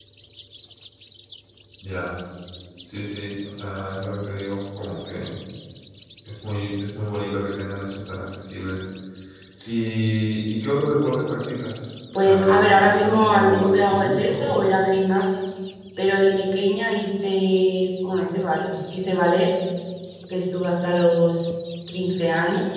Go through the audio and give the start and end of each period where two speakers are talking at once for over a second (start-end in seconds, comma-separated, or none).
12.2-14.6